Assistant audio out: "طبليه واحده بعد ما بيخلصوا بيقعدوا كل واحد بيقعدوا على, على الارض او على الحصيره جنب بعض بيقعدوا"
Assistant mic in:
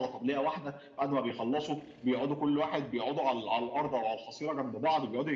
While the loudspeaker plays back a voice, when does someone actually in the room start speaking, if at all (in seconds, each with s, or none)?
none